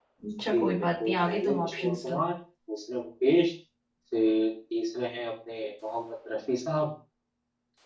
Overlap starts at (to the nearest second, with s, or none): 1 s